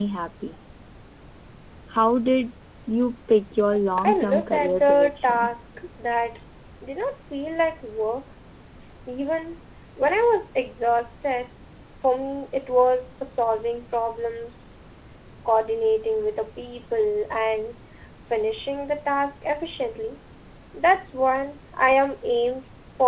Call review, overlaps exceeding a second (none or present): present